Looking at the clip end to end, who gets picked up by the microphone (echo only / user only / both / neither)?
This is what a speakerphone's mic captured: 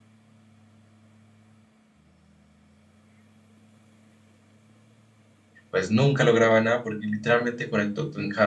user only